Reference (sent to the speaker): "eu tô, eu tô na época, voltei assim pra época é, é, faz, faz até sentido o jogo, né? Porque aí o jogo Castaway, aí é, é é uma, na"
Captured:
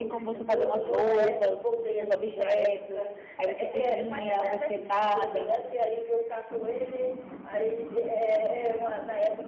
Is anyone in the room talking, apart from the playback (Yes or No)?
Yes